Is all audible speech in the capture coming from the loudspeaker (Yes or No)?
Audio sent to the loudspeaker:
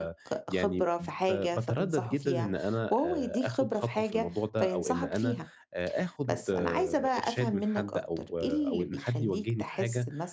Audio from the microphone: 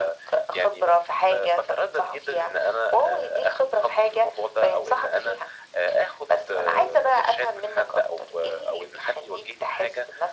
Yes